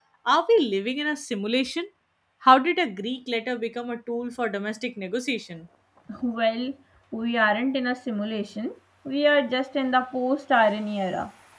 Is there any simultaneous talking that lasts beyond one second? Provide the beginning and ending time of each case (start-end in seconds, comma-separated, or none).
none